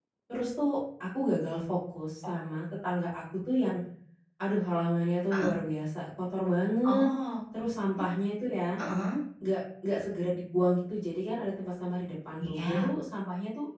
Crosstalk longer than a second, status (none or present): none